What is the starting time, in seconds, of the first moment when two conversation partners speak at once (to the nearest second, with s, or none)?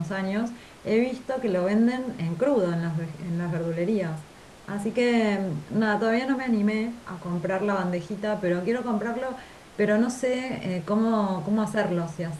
none